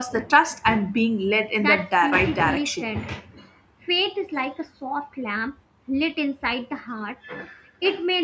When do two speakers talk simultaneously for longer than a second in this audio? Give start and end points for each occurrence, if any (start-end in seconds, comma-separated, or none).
1.6-2.9